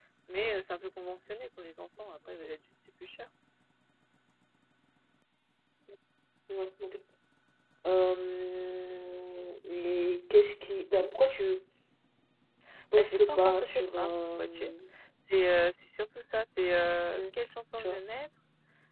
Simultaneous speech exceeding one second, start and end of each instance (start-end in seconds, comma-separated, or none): 13.0-14.7